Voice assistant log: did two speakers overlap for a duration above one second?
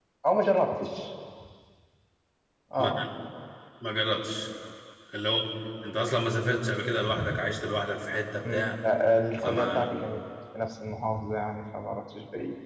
No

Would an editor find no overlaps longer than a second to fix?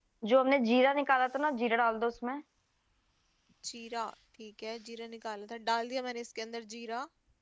Yes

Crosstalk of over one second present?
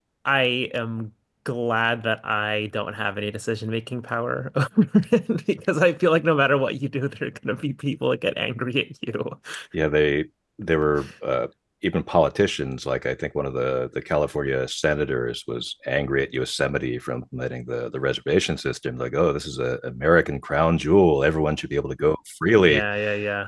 No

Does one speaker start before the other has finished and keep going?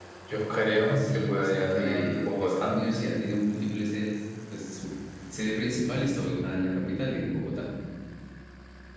Yes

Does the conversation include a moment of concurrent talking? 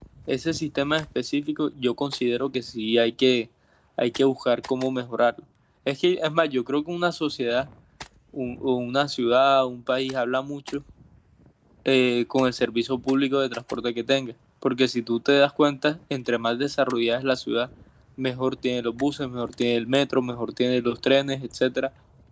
No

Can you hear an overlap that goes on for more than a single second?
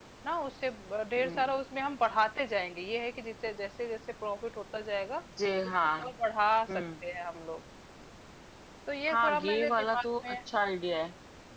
Yes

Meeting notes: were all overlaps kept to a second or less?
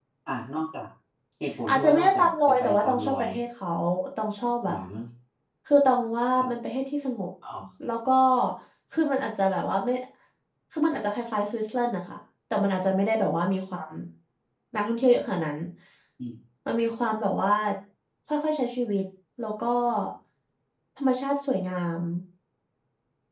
No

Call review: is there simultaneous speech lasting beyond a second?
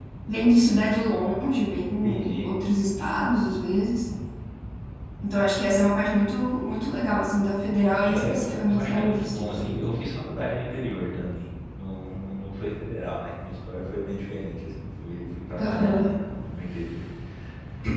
Yes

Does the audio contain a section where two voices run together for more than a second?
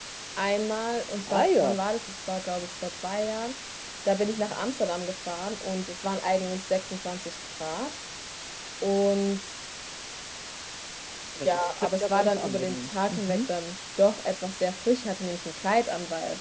Yes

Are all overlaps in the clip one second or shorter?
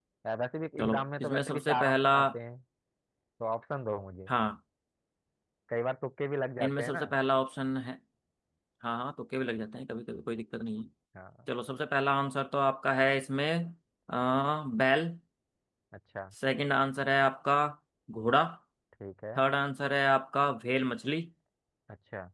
No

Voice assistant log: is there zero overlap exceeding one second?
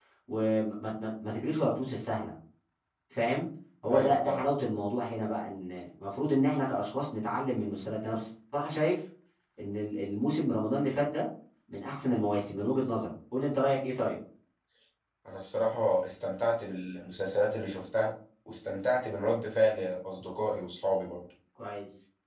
Yes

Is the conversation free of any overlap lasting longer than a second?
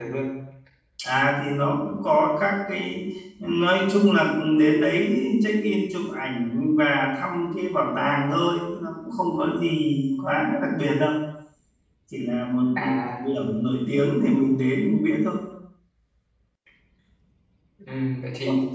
Yes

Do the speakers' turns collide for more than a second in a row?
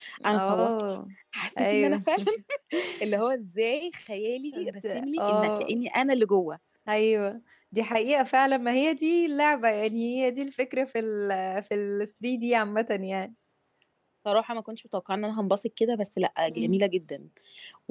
Yes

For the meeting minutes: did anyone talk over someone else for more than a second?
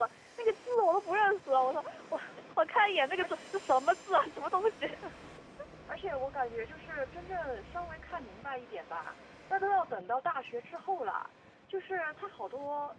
No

